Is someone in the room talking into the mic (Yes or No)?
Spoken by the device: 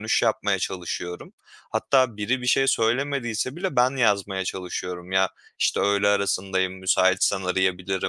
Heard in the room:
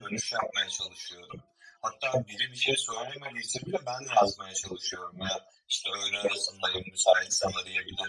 No